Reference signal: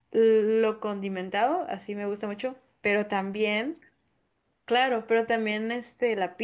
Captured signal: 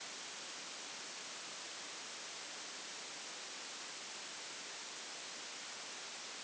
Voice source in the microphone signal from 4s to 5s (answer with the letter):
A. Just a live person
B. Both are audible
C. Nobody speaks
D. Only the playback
C